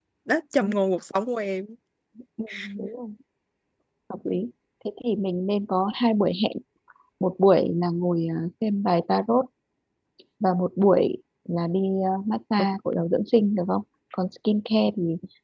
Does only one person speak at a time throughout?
Yes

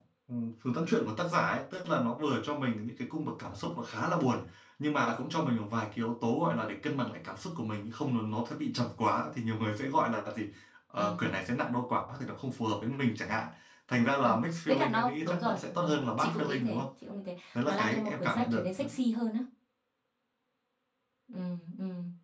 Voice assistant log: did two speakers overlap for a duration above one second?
Yes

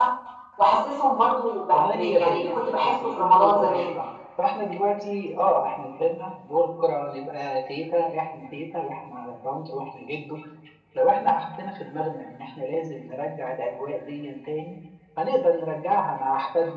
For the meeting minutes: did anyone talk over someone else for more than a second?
Yes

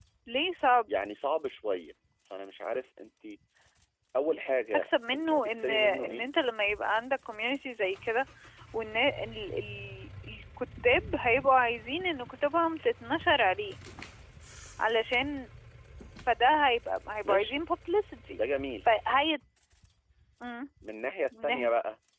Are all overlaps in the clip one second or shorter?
No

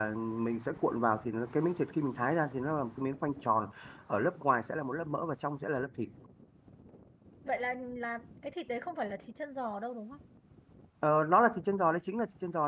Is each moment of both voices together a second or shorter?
Yes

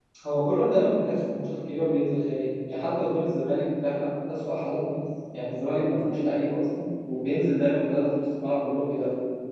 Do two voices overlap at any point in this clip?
No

